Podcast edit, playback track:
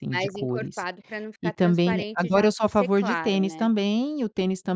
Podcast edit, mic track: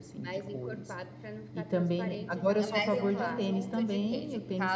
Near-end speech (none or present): present